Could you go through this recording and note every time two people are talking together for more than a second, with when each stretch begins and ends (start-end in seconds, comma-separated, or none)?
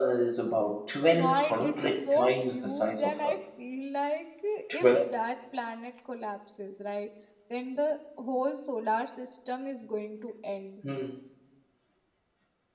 1.2-3.2